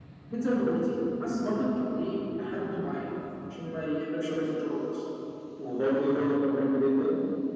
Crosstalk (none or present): none